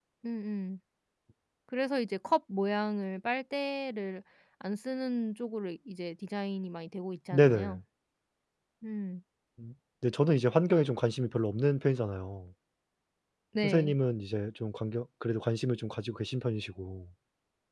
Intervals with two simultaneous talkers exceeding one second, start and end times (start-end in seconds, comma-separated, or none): none